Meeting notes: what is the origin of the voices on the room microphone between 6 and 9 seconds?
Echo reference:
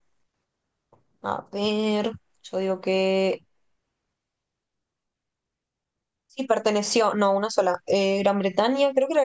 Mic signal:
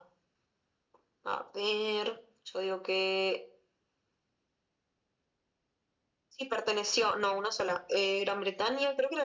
echo only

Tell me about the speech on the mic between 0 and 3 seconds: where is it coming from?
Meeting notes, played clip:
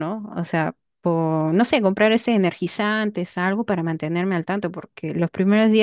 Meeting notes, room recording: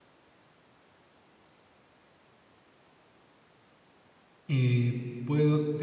neither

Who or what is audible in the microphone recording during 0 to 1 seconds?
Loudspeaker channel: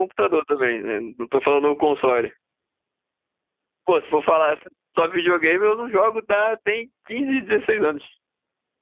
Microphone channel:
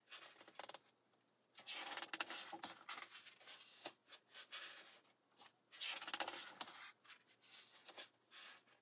neither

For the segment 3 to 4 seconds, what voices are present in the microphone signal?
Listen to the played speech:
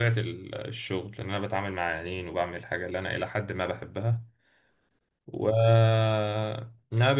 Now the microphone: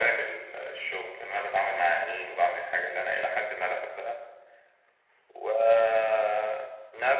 echo only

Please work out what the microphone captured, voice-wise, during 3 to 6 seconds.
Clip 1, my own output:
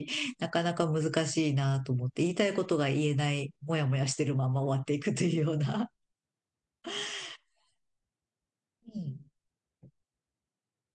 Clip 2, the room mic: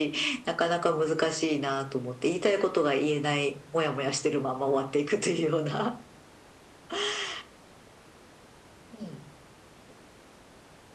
echo only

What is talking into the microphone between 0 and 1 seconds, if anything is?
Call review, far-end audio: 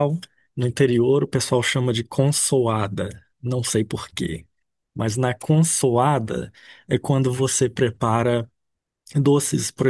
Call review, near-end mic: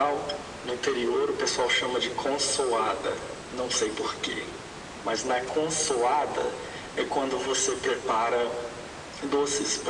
echo only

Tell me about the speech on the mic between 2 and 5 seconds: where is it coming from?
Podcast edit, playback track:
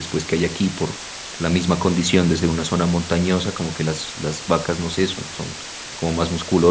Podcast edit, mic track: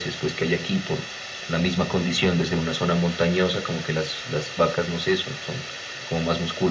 echo only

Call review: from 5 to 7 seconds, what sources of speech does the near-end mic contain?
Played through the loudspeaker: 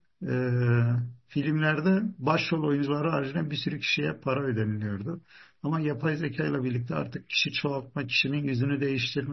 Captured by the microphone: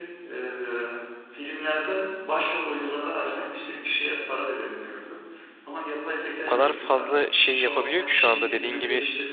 both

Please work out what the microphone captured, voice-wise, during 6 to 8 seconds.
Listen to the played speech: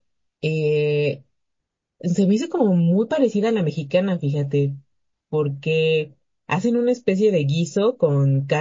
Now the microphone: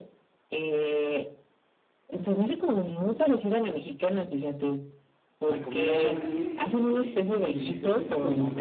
both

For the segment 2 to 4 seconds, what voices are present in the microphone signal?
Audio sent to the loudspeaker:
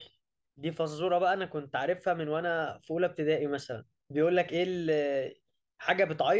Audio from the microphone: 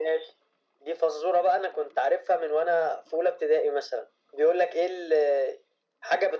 echo only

